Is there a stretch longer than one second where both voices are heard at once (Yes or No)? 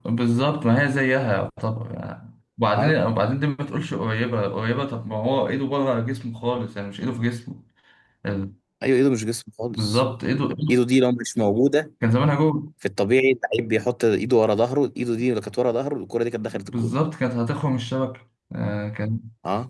No